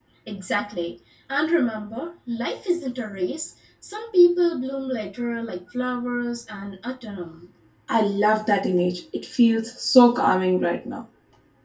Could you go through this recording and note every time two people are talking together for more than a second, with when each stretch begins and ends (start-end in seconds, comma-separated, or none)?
none